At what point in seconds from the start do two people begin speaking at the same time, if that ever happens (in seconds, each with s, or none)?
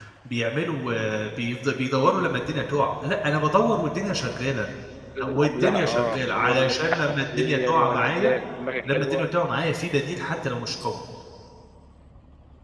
5.2 s